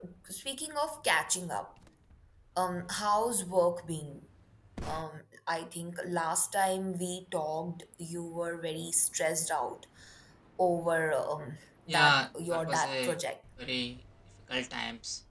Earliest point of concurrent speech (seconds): 12 s

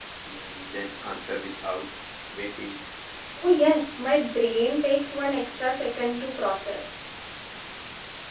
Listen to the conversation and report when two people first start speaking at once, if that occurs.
none

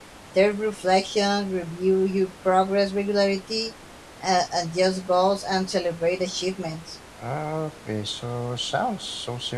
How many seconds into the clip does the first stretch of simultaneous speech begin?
none

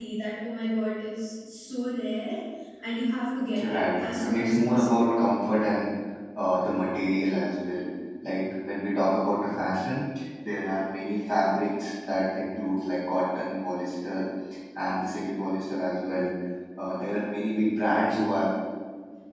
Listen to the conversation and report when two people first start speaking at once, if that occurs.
4 s

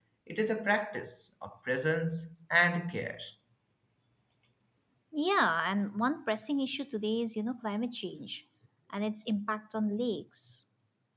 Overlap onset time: none

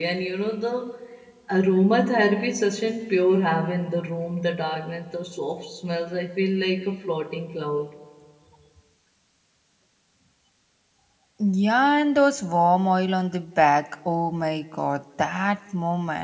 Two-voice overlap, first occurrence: none

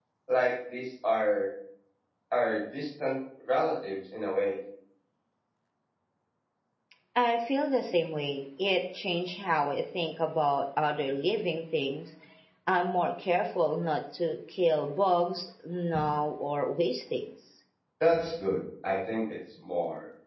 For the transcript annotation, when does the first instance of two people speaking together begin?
none

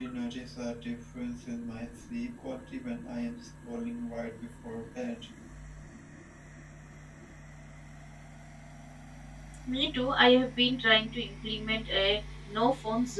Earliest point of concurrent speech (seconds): none

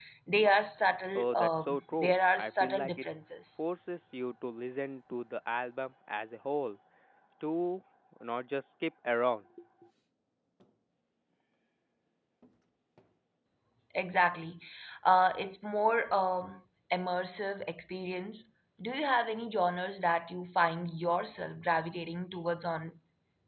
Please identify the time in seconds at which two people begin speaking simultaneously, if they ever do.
1 s

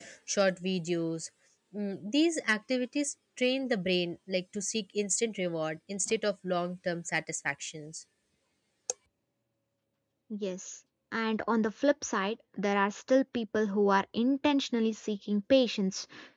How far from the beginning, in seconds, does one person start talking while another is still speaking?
none

